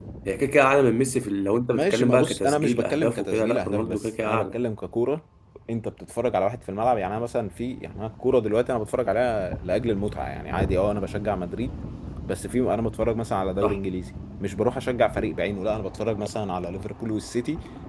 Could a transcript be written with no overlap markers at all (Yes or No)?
No